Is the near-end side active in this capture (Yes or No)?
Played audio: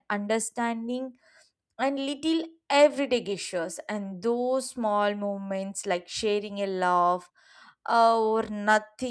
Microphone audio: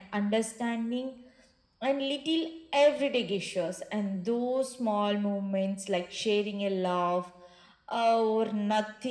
No